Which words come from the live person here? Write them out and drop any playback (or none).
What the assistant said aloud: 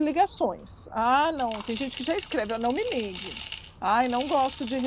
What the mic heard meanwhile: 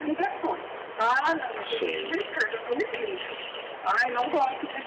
sim.